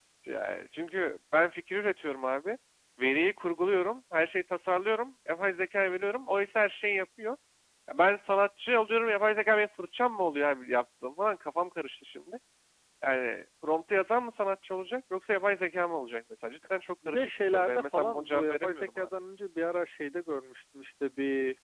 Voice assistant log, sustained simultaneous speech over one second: present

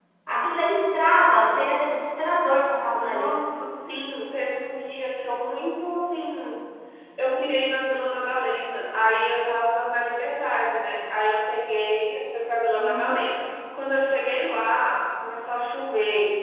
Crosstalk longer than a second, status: none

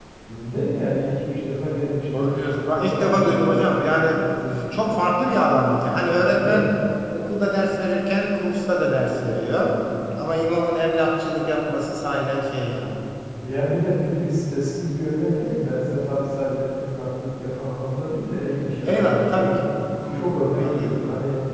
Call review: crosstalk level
present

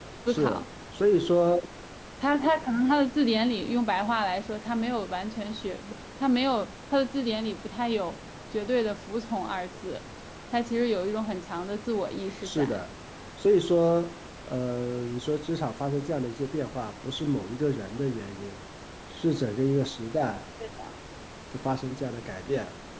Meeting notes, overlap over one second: none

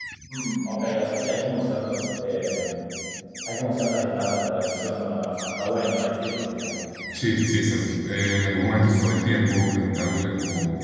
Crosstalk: none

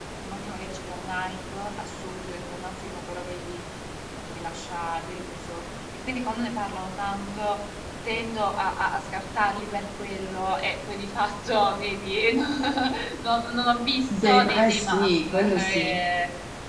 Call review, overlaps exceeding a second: present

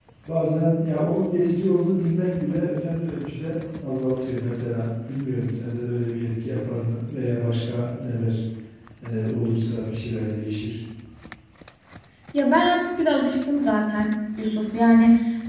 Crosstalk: none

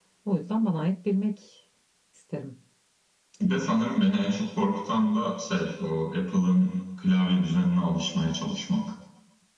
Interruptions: none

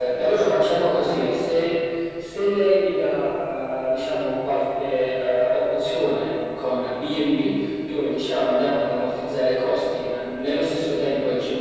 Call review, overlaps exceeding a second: present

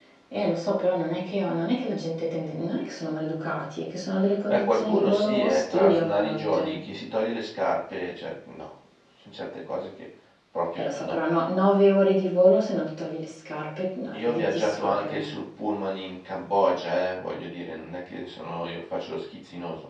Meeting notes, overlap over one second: present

